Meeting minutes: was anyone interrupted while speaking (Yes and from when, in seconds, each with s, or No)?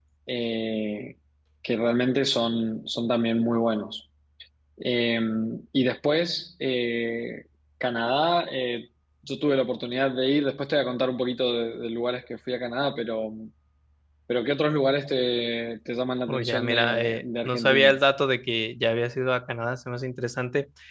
Yes, from 16.3 s